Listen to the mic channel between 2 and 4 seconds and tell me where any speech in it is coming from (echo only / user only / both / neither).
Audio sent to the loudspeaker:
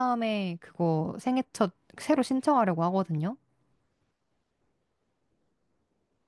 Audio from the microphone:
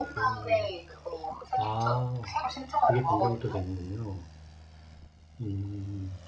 both